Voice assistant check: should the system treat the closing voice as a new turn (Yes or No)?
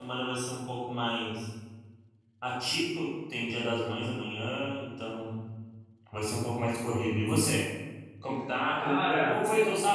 No